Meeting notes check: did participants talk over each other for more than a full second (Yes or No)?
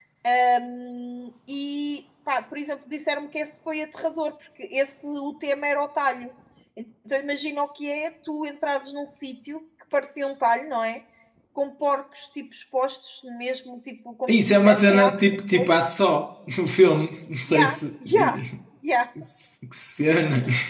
Yes